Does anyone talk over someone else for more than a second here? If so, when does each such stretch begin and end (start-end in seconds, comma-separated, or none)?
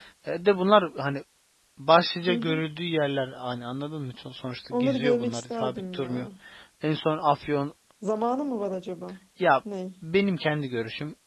4.7-6.3